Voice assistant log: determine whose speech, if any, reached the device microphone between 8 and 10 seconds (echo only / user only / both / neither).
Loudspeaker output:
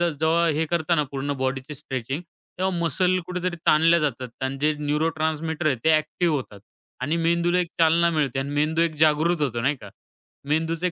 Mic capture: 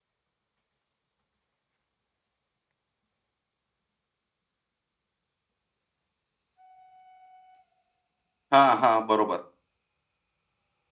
user only